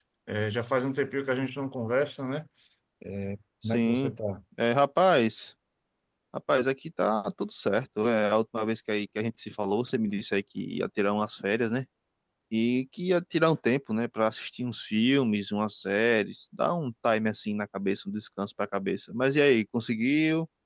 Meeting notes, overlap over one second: none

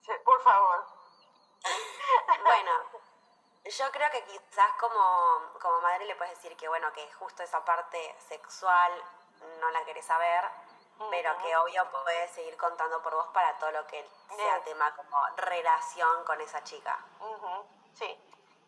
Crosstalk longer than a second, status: none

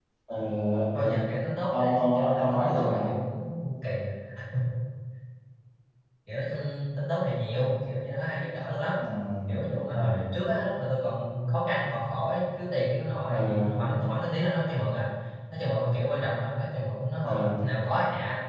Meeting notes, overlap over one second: present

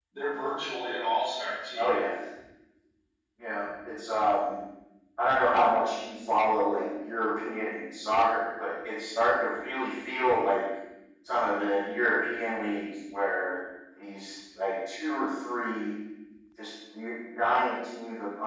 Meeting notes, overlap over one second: none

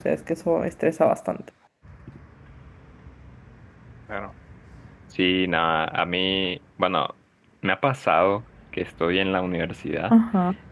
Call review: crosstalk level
none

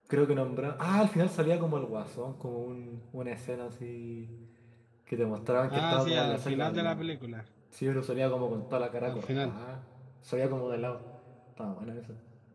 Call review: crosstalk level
present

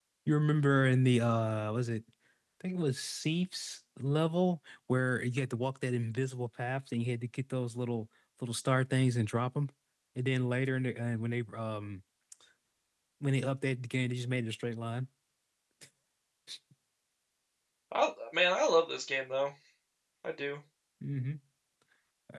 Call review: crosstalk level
none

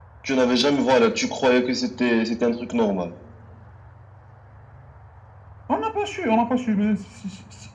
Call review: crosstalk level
none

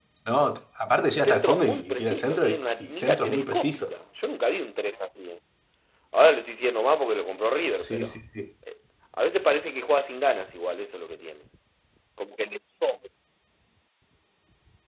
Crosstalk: present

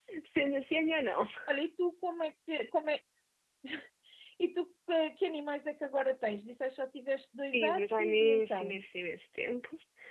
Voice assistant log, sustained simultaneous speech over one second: present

